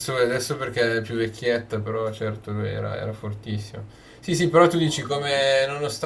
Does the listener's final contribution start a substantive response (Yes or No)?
No